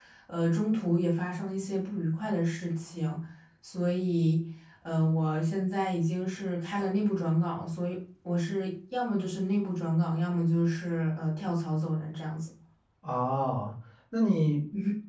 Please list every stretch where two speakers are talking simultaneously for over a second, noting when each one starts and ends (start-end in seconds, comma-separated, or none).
none